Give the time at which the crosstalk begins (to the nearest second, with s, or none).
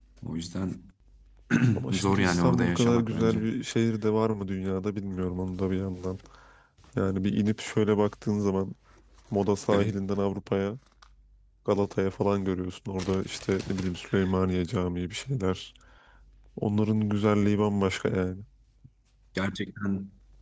2 s